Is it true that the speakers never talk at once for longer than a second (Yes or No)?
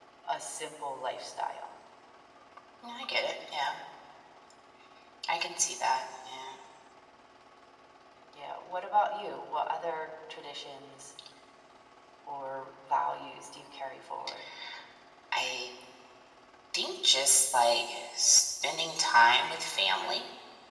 Yes